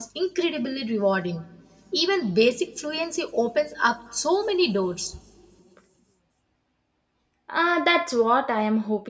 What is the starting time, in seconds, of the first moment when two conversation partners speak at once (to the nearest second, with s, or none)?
none